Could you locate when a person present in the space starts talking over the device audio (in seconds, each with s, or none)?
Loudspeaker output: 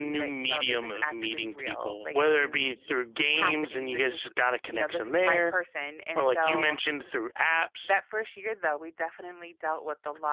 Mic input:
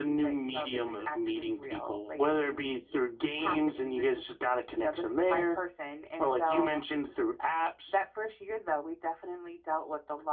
none